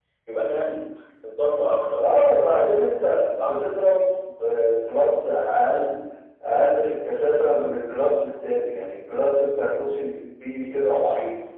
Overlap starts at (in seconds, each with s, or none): 2.0 s